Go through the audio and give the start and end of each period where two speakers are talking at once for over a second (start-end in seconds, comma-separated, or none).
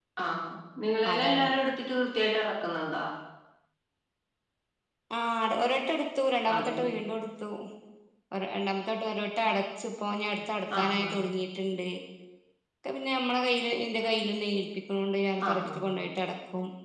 none